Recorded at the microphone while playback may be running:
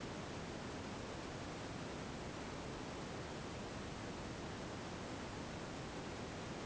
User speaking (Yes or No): No